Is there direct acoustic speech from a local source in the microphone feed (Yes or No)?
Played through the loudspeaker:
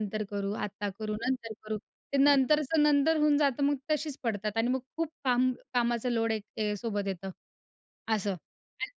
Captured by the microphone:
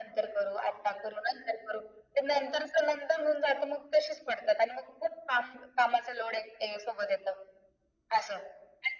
No